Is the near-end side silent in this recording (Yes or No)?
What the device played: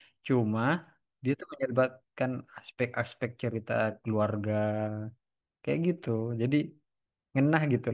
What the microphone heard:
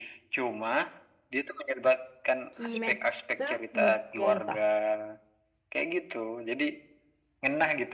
No